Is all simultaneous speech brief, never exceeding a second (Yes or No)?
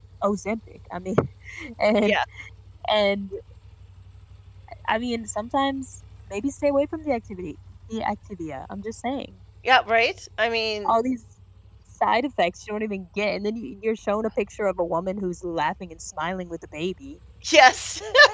Yes